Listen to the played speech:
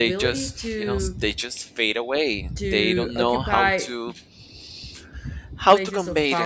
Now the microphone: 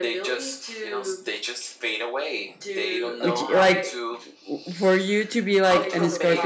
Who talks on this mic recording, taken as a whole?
both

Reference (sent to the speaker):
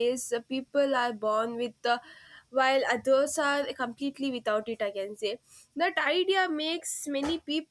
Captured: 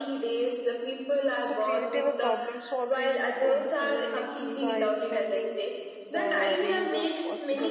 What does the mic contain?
both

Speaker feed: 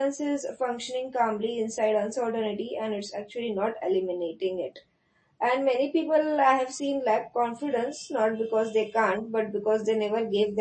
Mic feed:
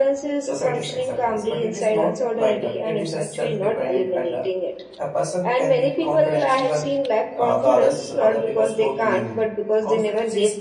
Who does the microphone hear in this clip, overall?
both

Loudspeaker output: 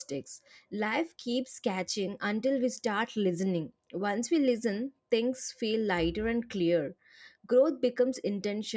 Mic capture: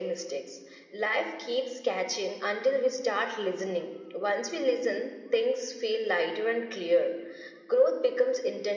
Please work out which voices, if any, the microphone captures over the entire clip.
echo only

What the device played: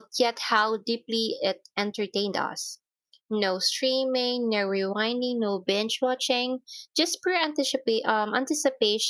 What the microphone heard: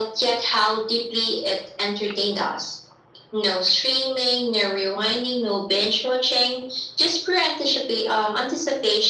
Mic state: echo only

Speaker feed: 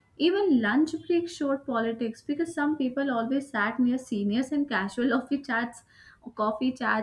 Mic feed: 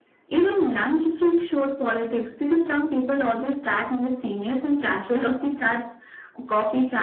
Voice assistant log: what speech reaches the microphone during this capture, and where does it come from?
echo only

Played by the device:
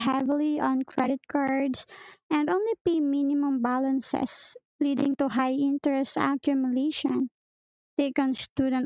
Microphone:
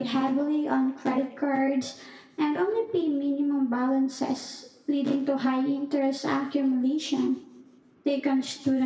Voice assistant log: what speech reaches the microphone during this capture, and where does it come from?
echo only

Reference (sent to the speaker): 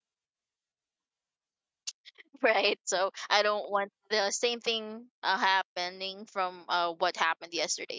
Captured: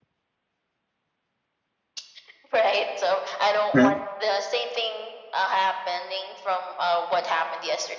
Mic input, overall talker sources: both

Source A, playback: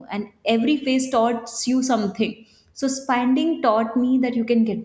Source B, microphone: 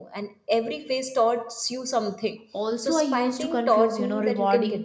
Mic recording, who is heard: both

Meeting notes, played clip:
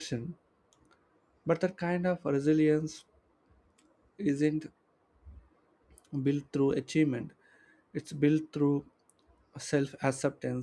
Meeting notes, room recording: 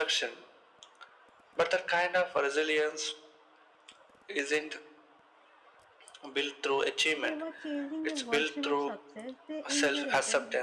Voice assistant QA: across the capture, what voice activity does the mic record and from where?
both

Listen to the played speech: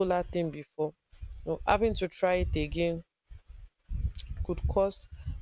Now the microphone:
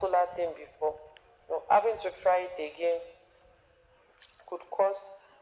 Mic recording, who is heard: echo only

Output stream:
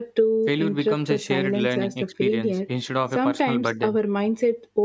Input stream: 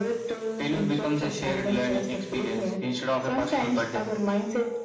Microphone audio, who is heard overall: echo only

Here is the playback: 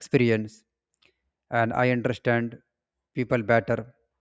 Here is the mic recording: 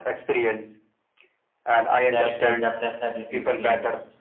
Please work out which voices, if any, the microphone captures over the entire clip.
both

